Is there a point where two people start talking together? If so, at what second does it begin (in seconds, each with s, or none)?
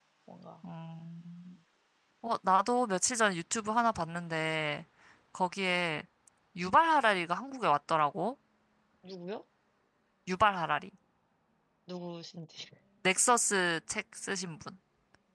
none